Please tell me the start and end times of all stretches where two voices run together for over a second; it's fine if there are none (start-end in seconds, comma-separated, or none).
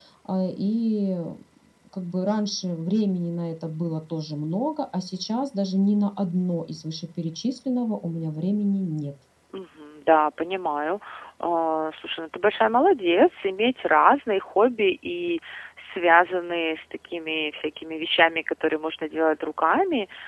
none